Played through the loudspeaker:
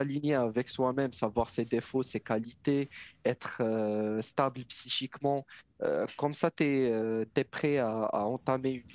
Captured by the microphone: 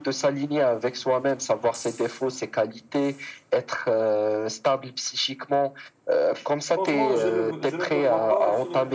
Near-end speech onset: 6.7 s

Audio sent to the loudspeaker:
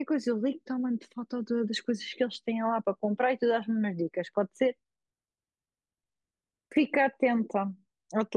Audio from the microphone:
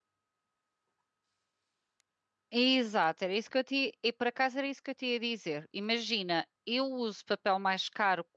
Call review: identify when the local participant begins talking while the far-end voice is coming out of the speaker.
2.5 s

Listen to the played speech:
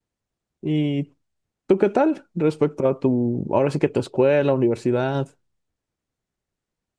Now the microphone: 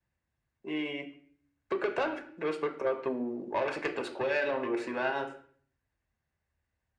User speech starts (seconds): none

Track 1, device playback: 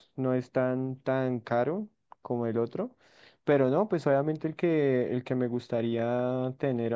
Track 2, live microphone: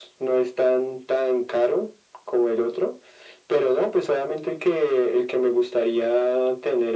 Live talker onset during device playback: none

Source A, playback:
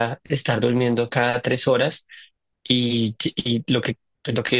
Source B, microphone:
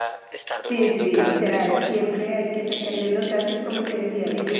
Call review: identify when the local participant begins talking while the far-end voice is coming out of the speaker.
0.7 s

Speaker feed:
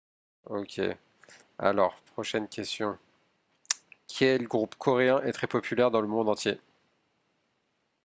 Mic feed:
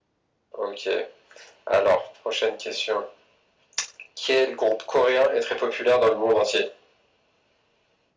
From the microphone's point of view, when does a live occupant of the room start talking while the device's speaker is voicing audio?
none

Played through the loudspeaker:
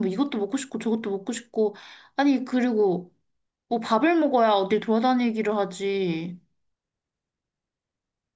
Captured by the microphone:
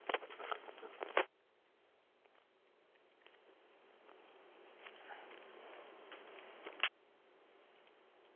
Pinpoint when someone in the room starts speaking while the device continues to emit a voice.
none

